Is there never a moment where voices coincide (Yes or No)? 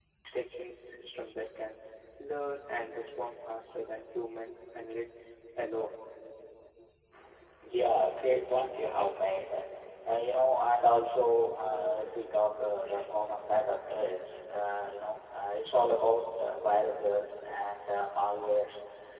Yes